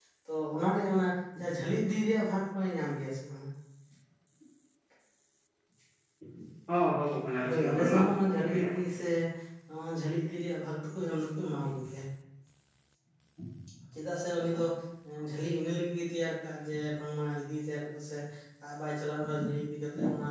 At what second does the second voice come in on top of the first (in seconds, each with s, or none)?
7.4 s